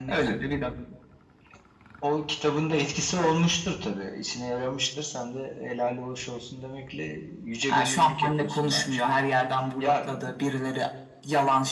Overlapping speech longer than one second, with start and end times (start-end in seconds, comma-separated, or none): 7.7-9.0